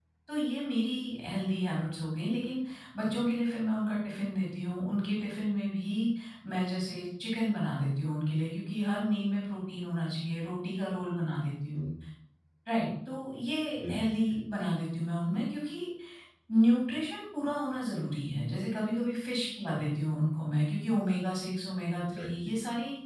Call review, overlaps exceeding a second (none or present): none